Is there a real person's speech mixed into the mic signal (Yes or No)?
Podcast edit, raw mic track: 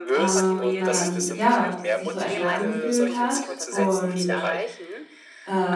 Yes